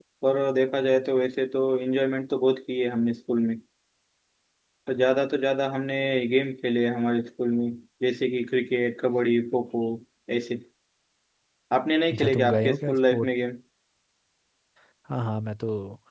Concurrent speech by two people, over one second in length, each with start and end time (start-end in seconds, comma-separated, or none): 12.1-13.4